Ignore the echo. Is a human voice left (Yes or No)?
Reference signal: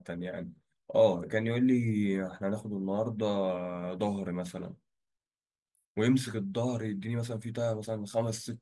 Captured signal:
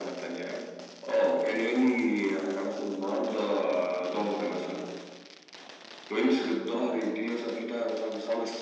No